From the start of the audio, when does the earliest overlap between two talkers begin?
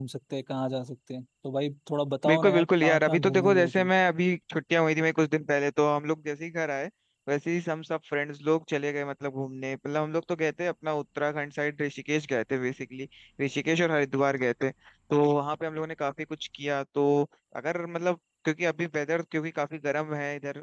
2.2 s

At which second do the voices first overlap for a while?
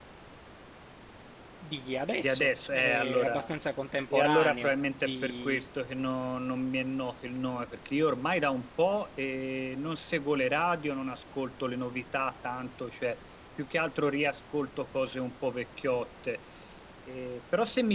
2.2 s

